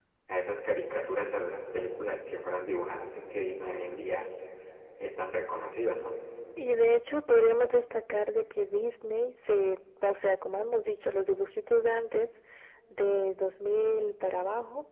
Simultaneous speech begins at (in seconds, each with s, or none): none